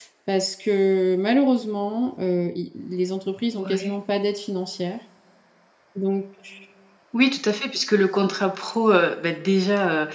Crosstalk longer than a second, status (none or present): none